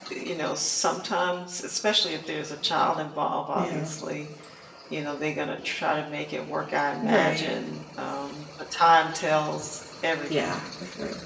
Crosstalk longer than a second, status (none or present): none